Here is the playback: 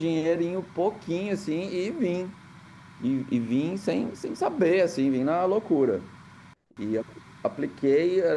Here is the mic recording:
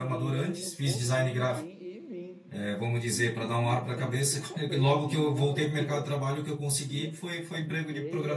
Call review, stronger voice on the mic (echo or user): user